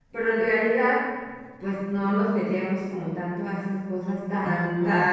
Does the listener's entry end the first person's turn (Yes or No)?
No